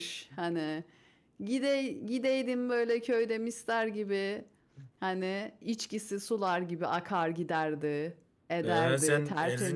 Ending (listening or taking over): taking over